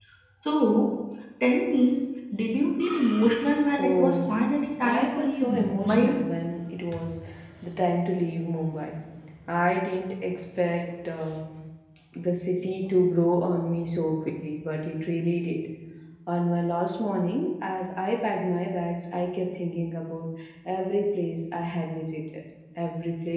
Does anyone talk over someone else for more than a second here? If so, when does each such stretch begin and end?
4.8-6.1

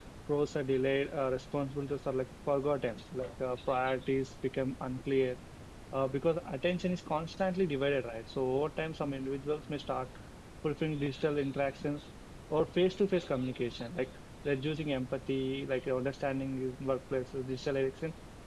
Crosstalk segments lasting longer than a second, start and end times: none

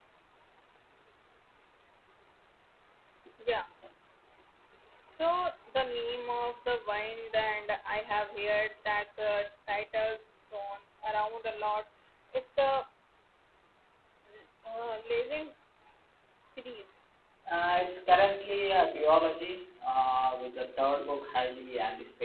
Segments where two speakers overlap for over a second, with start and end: none

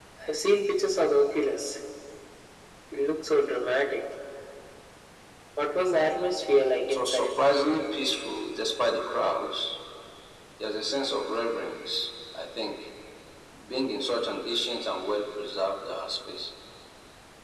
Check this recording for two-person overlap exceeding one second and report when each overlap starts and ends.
none

